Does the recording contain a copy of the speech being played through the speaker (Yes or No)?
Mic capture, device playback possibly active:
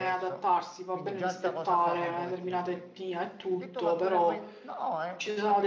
Yes